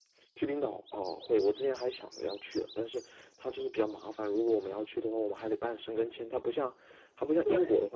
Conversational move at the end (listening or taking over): listening